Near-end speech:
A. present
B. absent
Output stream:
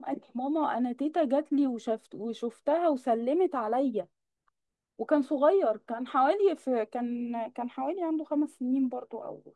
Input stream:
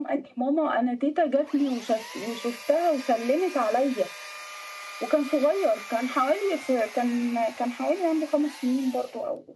B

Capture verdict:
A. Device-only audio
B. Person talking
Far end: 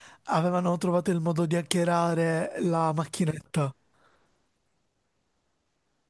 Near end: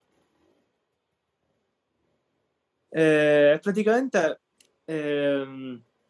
B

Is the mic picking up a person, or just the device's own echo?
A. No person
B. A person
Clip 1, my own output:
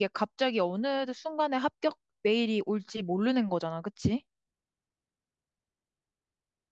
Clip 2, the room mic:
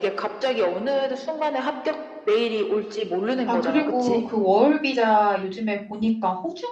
B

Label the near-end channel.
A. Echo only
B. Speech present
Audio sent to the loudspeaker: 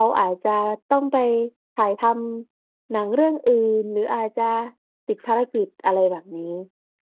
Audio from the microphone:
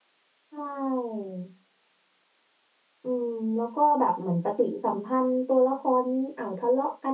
B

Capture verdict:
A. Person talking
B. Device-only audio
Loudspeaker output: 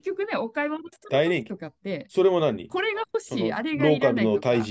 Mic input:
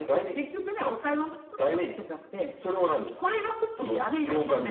B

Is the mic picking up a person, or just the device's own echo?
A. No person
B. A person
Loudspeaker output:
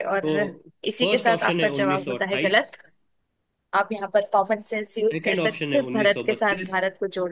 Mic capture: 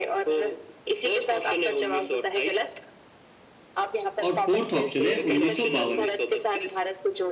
B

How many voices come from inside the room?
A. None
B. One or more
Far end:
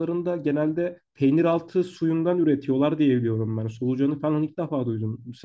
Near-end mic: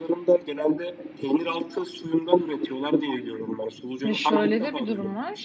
B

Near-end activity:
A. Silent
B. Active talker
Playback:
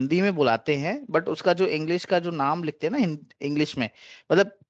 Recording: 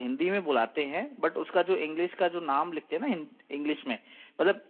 A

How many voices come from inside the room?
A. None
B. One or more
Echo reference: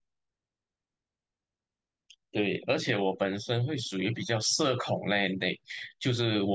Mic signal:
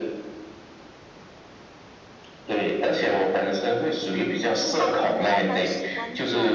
B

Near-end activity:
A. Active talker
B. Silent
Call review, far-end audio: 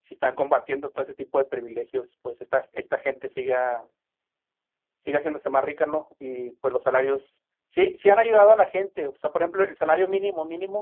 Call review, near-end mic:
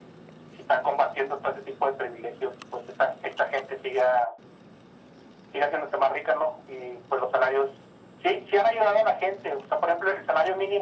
B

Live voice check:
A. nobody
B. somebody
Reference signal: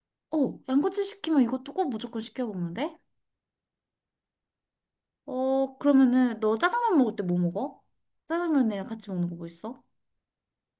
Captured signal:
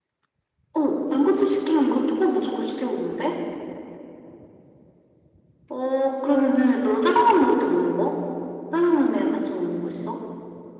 A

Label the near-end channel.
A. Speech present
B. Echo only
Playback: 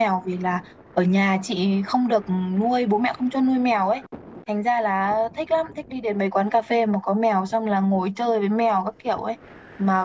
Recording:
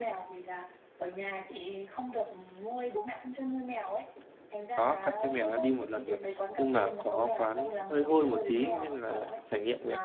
A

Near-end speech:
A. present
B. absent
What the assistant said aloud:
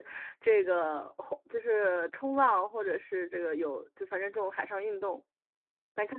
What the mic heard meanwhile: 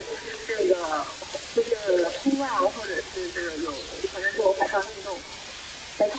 B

